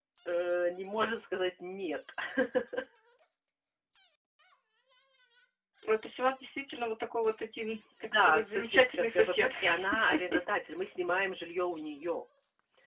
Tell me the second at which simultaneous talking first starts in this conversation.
8 s

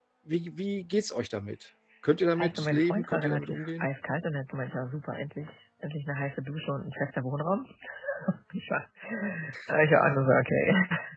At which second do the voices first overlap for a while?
2 s

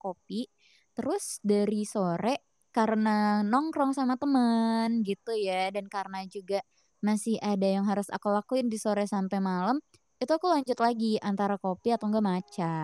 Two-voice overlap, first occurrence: none

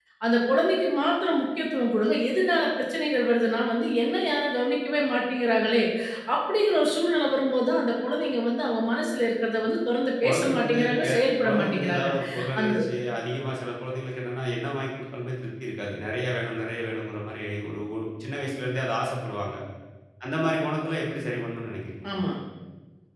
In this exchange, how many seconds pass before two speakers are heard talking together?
10 s

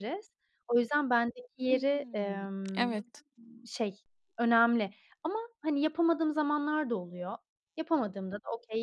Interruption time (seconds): 2 s

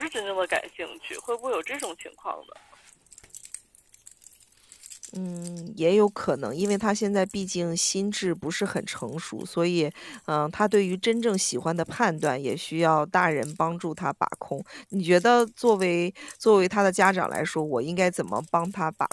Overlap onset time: none

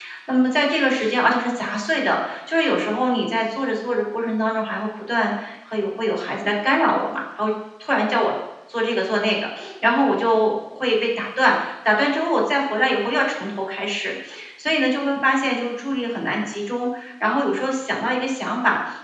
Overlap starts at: none

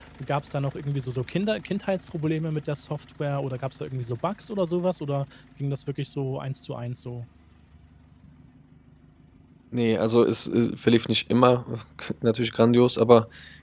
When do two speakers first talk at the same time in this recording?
none

